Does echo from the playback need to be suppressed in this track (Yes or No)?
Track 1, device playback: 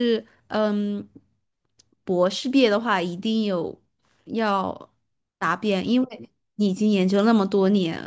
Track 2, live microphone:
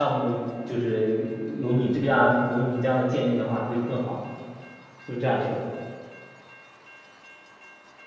No